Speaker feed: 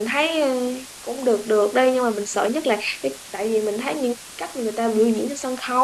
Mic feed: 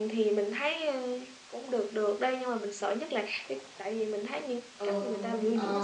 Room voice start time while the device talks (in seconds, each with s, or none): 4.7 s